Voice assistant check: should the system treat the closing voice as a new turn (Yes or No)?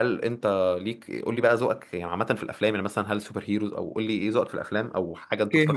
Yes